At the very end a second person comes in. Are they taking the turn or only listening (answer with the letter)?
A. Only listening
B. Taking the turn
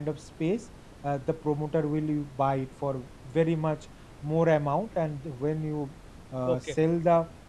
A